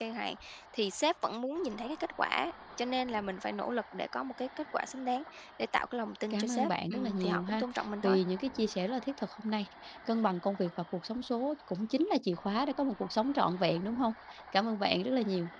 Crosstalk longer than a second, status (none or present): present